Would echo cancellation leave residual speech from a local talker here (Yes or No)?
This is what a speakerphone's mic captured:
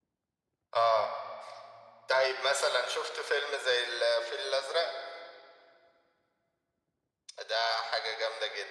No